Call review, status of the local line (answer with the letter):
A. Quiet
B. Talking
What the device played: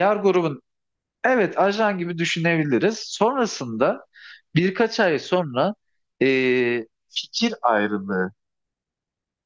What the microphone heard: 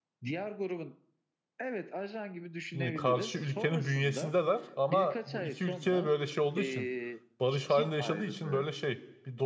B